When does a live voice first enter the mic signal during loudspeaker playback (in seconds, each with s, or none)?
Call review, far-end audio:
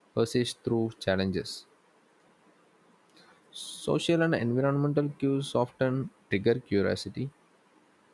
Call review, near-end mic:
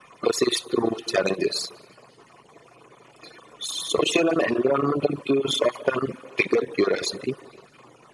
none